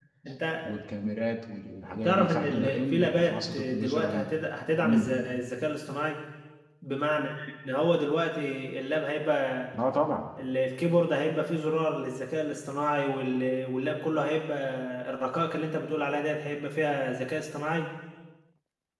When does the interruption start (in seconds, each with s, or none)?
2.0 s